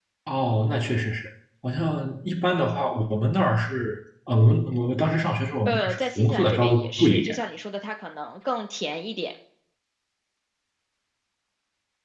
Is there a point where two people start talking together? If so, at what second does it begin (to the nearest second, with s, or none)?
6 s